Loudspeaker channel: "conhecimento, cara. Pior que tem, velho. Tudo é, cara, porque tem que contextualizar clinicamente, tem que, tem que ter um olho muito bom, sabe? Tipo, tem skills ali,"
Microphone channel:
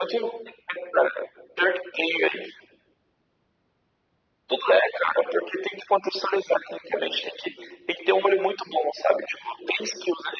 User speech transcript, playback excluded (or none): none